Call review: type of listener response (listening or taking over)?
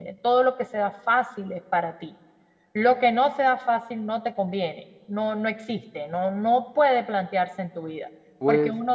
listening